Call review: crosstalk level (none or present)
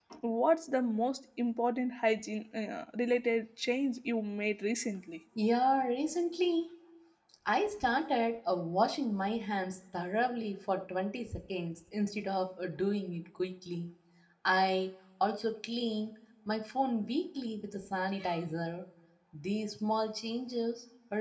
none